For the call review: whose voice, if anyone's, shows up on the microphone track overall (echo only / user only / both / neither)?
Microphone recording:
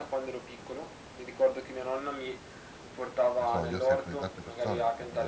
both